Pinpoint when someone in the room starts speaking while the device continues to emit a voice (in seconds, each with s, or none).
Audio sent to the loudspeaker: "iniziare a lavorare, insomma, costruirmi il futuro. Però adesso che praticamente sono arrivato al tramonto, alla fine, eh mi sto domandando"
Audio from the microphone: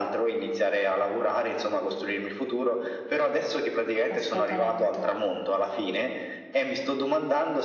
4.1 s